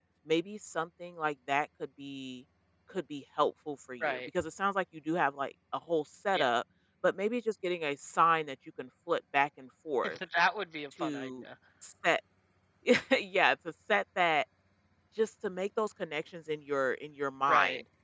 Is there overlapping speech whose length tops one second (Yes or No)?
No